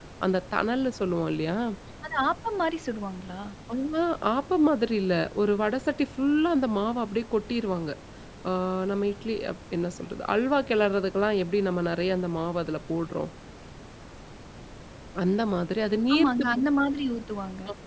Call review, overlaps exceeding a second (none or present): none